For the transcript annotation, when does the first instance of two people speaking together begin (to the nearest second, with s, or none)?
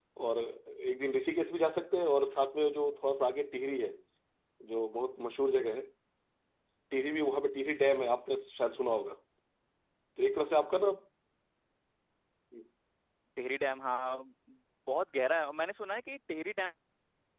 none